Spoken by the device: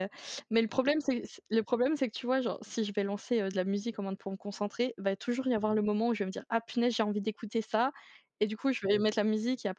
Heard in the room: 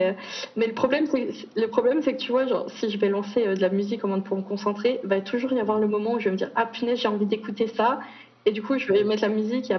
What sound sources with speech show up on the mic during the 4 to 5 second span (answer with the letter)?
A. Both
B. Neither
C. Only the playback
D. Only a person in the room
C